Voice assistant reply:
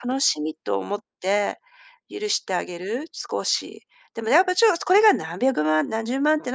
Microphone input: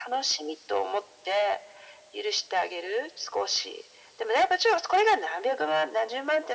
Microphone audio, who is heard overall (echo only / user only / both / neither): echo only